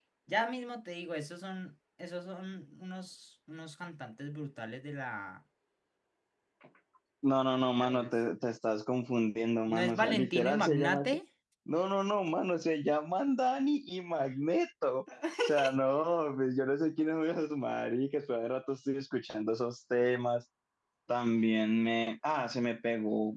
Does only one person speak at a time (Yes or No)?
No